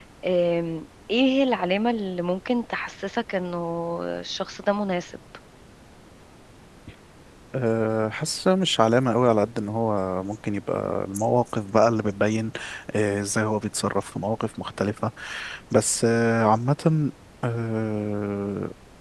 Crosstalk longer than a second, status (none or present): none